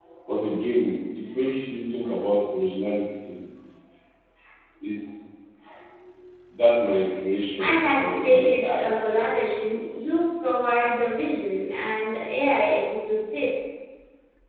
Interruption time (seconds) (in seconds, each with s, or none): 7.6 s